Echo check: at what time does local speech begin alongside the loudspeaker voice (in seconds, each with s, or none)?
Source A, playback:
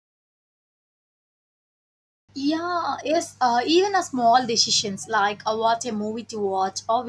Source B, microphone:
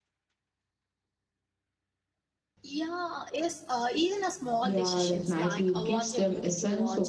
4.6 s